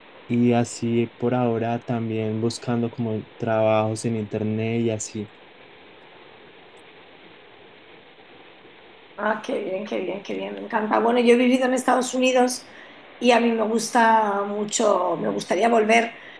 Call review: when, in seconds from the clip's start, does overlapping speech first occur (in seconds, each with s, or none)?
none